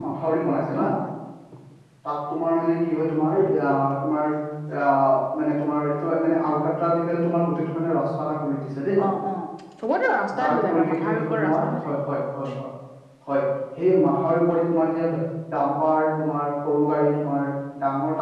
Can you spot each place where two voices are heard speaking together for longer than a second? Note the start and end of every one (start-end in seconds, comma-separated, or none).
10.4-11.9